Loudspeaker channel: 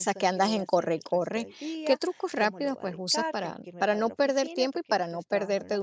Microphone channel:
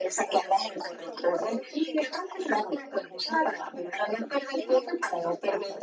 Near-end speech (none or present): present